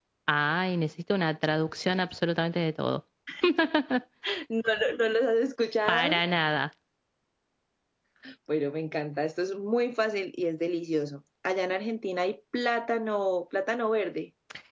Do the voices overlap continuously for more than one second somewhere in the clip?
No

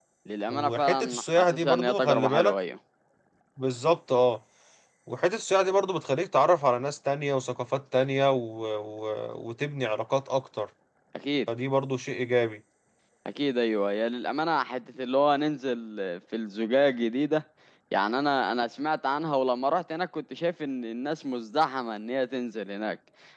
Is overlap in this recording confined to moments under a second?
No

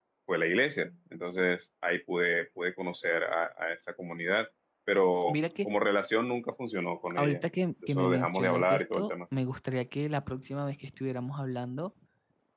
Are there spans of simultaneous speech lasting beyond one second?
Yes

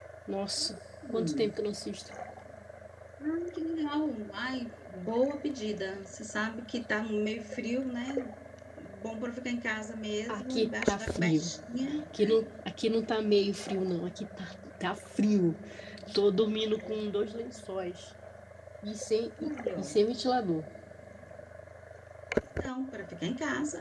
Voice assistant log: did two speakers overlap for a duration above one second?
Yes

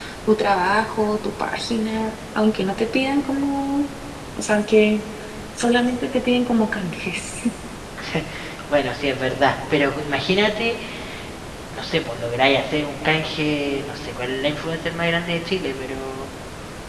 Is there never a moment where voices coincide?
Yes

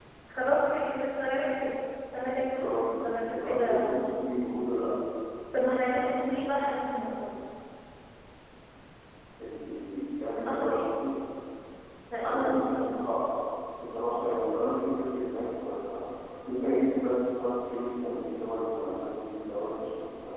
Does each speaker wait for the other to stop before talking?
No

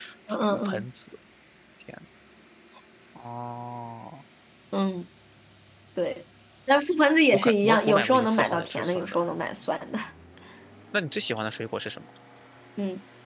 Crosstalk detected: Yes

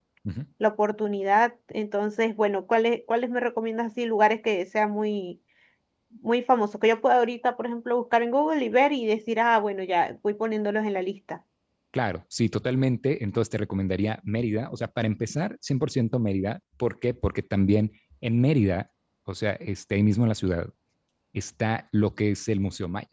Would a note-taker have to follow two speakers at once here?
No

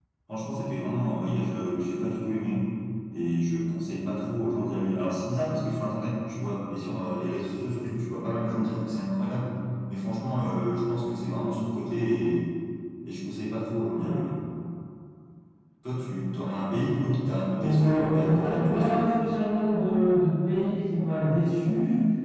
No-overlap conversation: No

